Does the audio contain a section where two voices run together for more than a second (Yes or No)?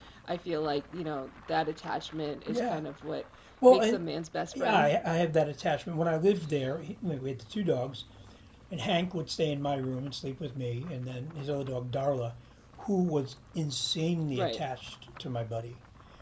No